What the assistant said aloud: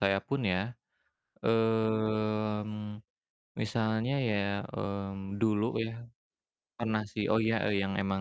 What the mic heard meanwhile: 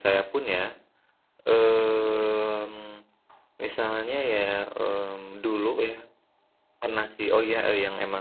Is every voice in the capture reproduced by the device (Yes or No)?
Yes